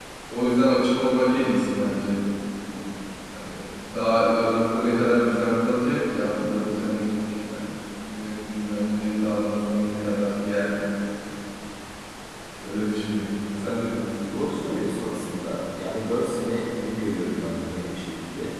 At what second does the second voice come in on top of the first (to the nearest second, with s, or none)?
none